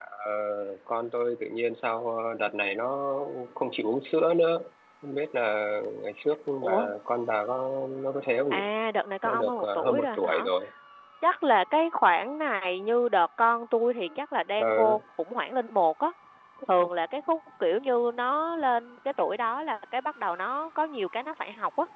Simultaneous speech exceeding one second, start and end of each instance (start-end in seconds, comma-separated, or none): 9.2-10.4